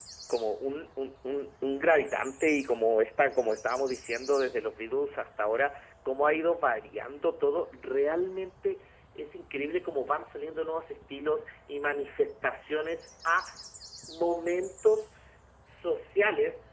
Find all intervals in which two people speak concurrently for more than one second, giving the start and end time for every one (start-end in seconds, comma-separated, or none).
none